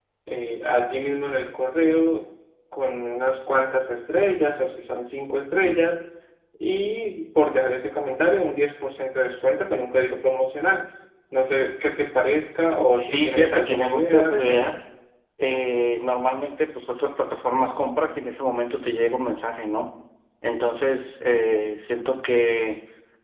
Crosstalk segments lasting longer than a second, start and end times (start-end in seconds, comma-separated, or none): 13.0-14.7